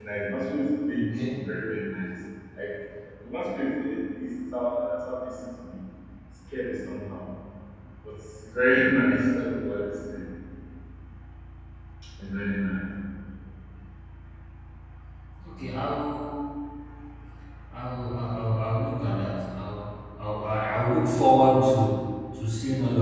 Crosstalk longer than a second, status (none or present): none